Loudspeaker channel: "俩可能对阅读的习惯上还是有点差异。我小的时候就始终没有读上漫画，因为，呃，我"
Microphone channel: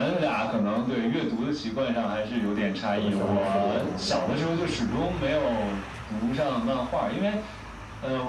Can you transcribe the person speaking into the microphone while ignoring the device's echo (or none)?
怎么消磨时光呢？